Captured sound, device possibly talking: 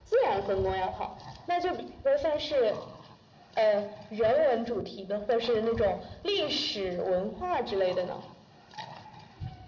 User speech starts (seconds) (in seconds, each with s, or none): none